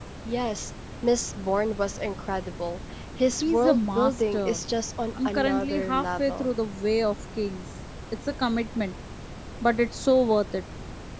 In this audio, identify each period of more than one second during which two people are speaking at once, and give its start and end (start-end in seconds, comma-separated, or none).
3.4-4.6, 5.2-6.5